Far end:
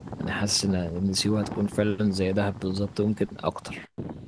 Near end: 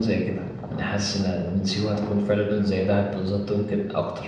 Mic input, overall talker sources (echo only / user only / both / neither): echo only